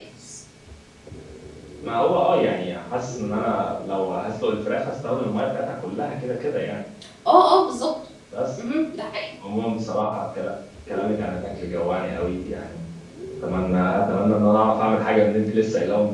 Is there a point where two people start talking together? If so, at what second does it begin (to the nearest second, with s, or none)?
none